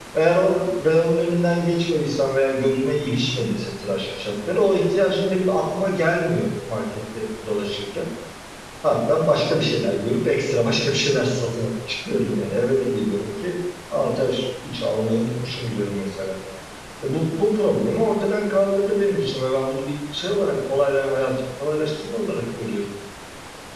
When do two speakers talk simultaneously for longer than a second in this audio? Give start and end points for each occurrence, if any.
none

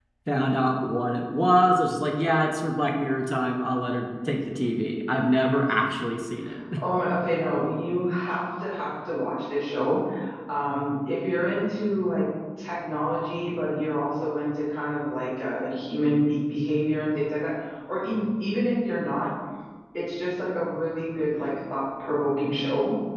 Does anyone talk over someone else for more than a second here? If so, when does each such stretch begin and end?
none

